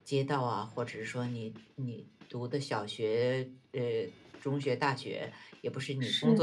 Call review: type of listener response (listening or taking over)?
listening